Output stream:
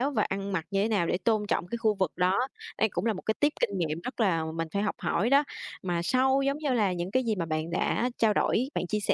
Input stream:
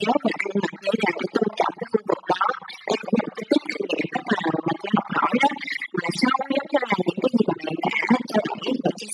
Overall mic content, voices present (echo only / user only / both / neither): echo only